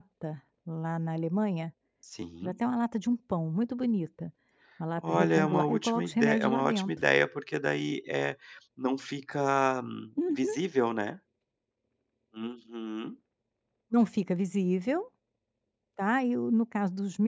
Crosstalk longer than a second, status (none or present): present